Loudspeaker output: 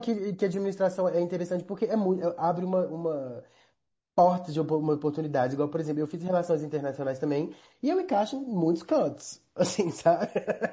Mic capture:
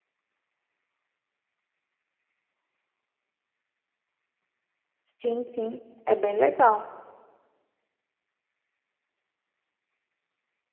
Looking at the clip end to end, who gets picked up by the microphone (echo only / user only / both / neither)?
user only